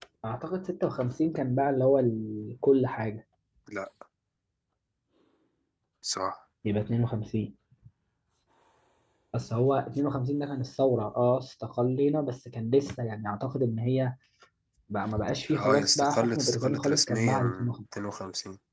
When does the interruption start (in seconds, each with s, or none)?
15.5 s